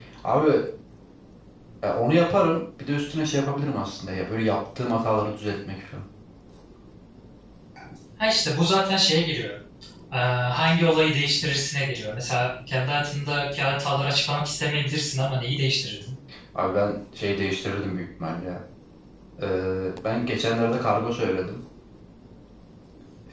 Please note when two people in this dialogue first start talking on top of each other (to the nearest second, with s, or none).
none